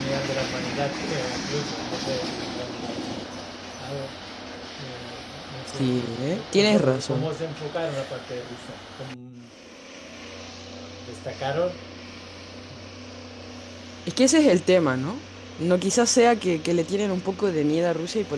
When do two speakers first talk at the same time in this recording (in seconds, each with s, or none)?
5.7 s